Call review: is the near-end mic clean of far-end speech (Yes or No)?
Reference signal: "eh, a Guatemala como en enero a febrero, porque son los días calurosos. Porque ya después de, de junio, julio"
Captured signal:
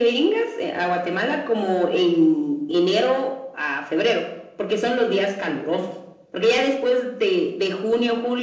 No